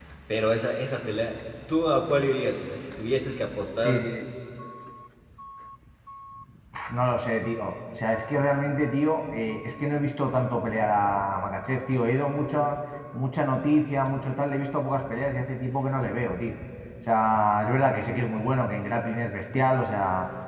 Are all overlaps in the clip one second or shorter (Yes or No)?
Yes